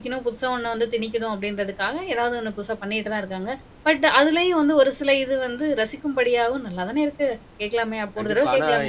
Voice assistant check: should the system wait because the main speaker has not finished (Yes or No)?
No